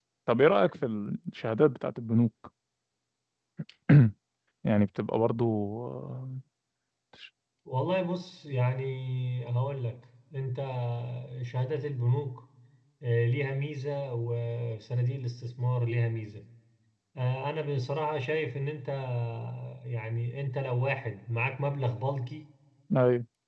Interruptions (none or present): none